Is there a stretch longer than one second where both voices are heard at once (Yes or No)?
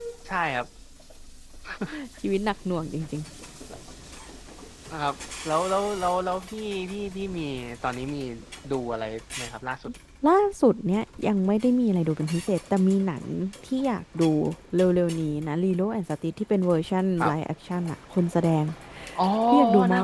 No